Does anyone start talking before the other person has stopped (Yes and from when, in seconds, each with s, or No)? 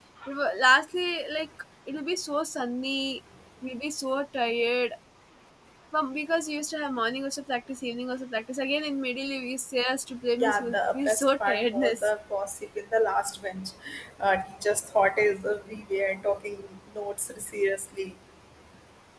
Yes, from 10.4 s